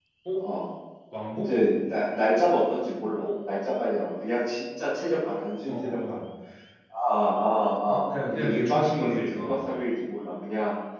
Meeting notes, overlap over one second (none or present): present